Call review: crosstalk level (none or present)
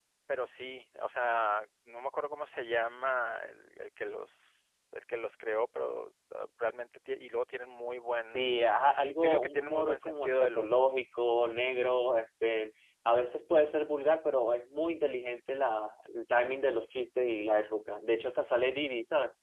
present